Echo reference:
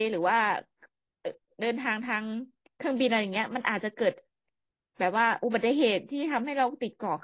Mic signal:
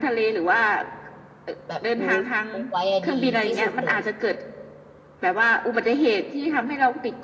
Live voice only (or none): แบบรู้รู้ไว้อะดีที่สุดเลย